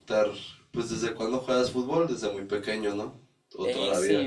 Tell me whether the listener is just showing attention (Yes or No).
No